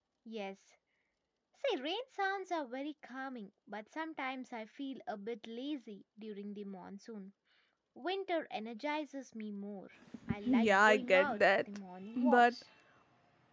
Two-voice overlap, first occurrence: 10.2 s

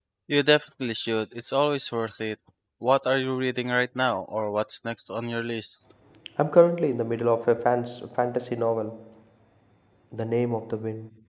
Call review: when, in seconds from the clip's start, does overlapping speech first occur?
none

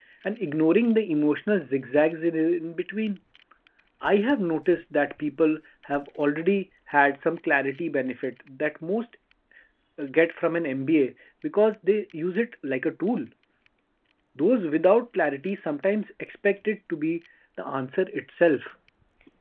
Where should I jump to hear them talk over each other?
none

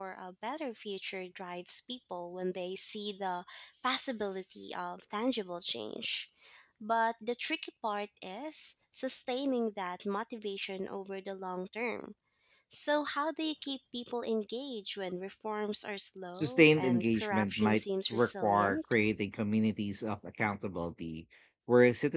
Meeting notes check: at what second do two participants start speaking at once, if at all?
16.4 s

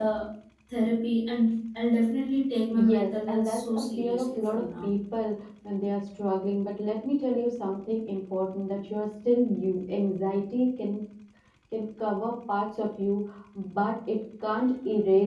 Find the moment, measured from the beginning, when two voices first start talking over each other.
2.7 s

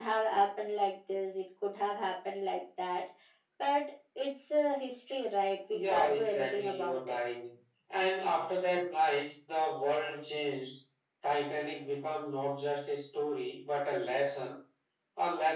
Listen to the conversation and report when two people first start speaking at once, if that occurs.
5.7 s

